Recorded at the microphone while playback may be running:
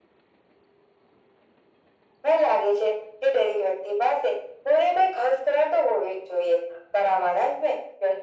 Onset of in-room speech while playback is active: none

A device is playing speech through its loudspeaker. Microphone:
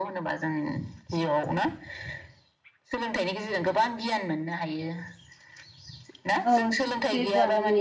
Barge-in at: 6.4 s

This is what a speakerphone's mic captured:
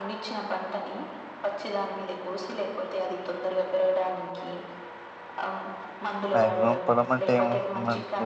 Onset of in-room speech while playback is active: 6.3 s

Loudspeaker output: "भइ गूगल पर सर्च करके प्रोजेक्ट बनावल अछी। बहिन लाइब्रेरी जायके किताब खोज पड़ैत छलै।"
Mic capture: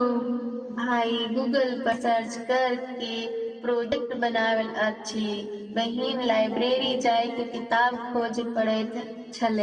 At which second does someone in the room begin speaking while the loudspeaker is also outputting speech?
none

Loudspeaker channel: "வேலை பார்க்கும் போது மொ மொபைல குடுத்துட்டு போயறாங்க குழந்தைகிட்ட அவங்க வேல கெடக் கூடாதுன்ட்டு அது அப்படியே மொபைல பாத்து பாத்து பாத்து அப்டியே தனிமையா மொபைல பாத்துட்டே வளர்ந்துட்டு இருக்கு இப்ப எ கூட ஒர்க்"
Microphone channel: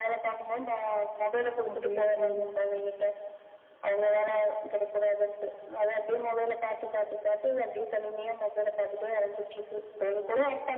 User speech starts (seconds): 1.7 s

